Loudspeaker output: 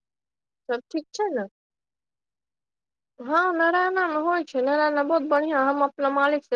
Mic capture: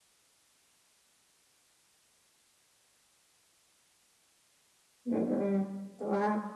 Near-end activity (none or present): present